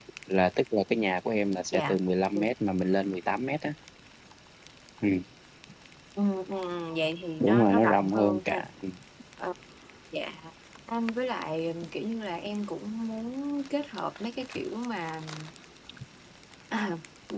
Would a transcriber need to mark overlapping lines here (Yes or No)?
Yes